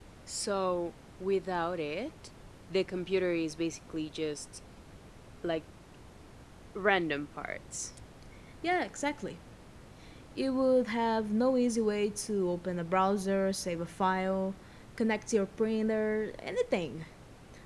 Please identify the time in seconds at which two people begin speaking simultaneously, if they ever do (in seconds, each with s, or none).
none